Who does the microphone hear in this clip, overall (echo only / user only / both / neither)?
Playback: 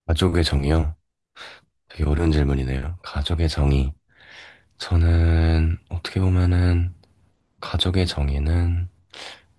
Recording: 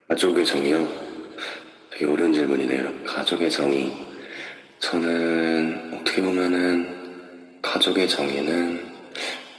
echo only